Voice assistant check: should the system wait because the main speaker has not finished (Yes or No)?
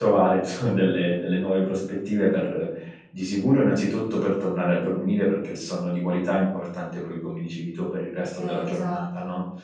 Yes